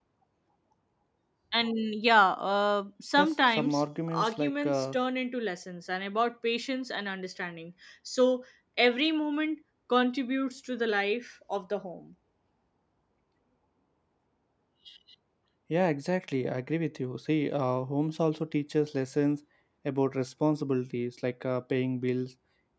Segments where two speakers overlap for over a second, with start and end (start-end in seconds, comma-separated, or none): 3.2-5.0